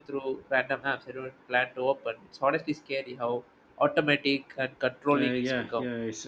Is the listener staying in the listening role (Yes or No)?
No